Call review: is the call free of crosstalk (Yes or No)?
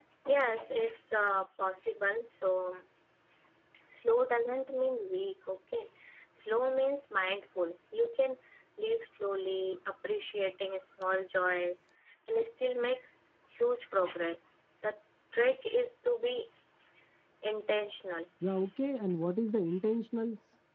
Yes